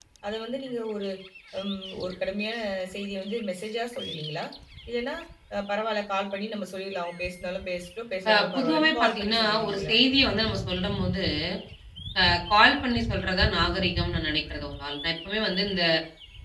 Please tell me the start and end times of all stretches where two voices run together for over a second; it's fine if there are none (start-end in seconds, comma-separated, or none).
8.3-9.9